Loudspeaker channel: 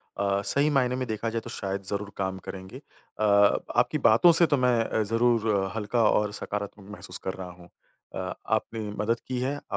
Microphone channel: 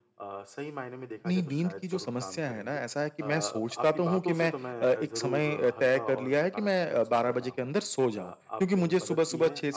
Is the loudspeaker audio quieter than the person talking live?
Yes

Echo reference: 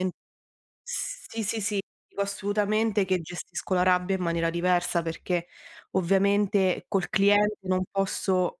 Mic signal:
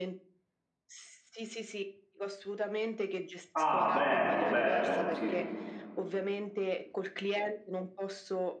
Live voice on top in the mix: Yes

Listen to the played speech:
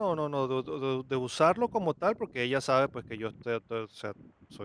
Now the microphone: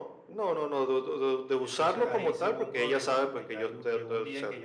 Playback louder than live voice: Yes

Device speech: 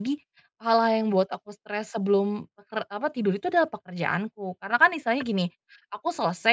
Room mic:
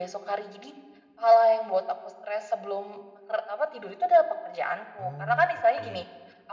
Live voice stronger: No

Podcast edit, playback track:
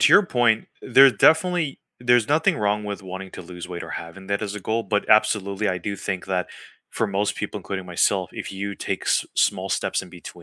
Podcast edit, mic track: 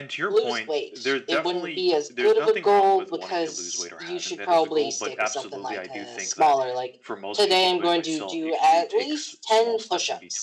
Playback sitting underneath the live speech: Yes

